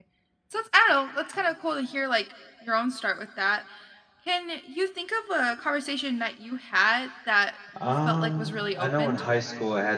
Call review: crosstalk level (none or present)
present